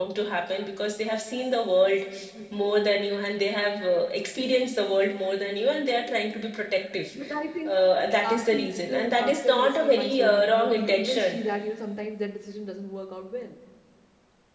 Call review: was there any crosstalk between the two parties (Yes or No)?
Yes